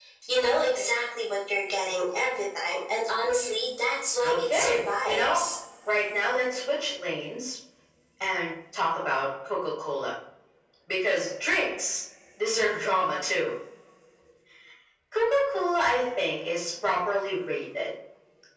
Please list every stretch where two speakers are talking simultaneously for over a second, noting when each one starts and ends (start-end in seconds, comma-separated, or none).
4.2-5.4